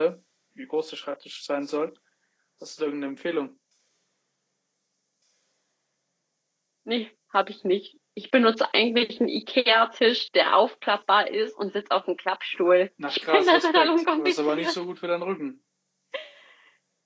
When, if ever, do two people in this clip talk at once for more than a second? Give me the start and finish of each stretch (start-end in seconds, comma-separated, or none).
13.1-14.7